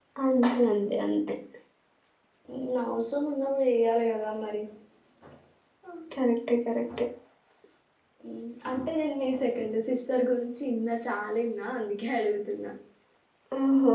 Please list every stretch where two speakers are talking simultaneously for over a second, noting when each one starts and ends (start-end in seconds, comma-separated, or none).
none